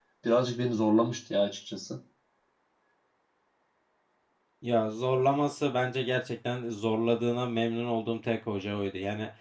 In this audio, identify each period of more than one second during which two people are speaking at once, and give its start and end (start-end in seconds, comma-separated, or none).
none